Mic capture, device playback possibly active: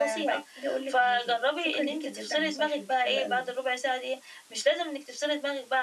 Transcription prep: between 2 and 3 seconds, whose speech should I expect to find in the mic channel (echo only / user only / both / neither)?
echo only